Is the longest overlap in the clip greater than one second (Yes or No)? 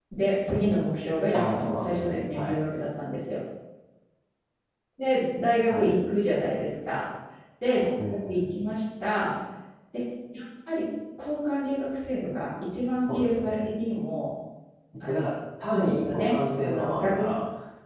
Yes